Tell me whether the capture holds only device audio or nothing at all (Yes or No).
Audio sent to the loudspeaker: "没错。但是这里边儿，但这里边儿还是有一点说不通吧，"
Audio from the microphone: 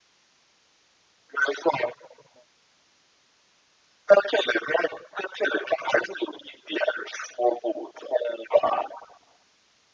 Yes